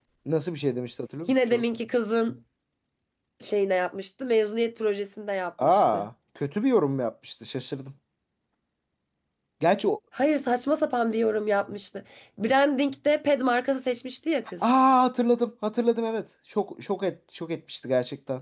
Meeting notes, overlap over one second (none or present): none